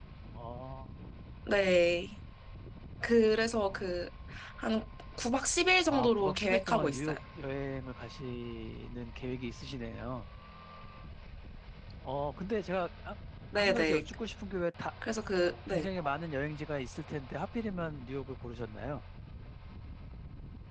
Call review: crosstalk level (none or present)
present